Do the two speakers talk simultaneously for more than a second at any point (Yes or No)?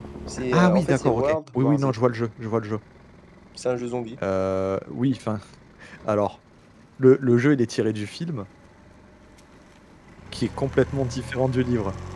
Yes